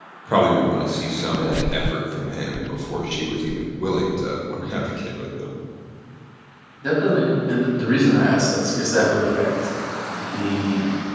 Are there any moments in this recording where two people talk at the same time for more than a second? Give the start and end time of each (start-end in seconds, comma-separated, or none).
none